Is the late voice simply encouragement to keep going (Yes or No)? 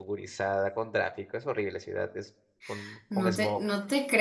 No